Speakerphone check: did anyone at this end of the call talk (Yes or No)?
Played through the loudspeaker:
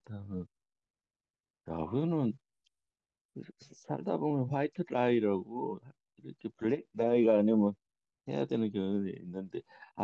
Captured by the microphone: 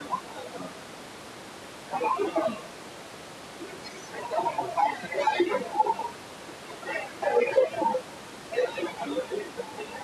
No